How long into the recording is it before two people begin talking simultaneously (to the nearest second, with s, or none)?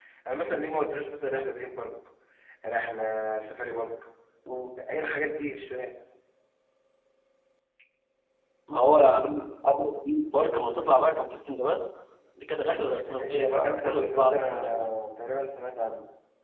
13 s